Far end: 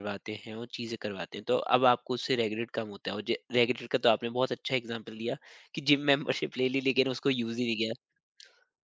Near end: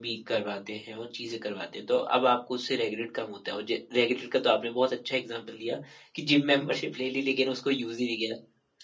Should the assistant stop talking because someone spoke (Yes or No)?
No